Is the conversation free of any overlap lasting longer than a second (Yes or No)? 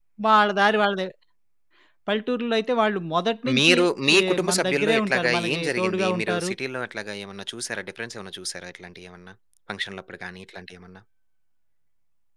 No